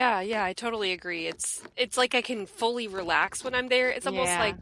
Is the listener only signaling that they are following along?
Yes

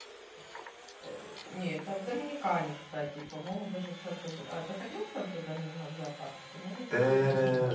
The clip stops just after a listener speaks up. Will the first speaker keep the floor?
No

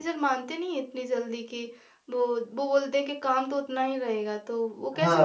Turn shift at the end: Yes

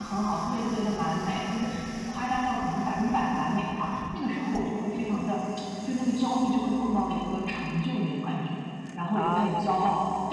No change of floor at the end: Yes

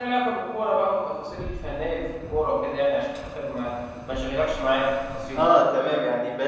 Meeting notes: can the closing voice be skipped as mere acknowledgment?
No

